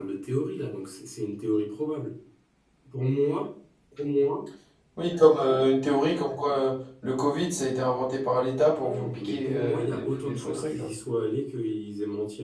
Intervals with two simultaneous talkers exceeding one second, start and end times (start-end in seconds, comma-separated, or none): 8.8-10.9